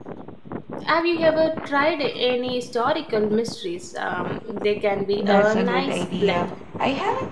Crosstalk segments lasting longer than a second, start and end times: 5.2-6.5

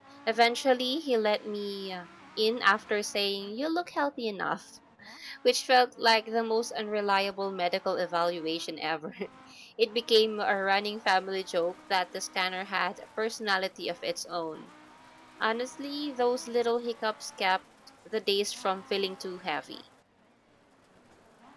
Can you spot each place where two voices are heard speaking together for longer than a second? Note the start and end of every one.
none

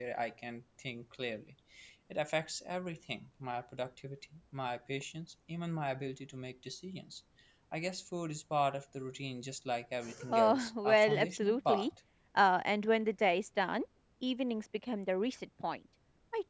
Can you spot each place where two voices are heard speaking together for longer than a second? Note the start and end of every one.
10.3-11.9

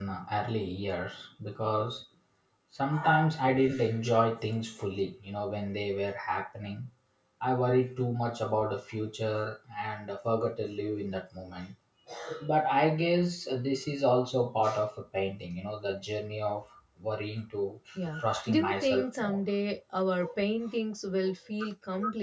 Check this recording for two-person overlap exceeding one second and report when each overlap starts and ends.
18.2-19.4

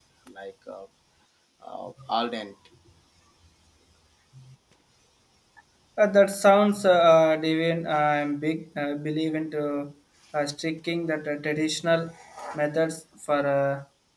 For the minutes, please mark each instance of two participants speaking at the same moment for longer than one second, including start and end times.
none

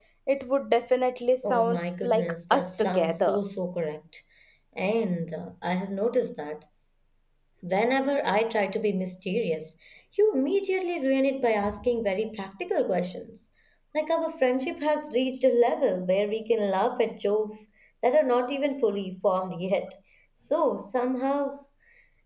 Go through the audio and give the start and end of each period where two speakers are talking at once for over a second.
1.4-3.4

